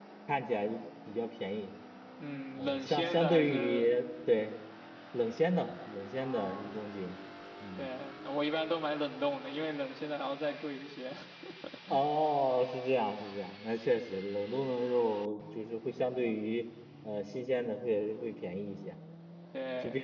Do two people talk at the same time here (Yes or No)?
Yes